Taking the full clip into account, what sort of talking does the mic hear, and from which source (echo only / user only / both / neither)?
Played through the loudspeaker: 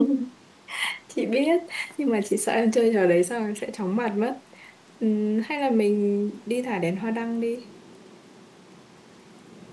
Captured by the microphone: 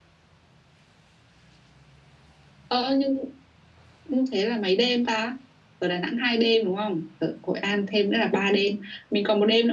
user only